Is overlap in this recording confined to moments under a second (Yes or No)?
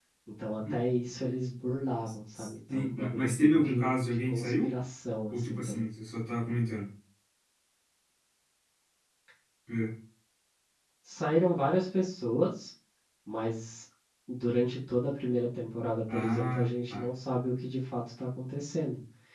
No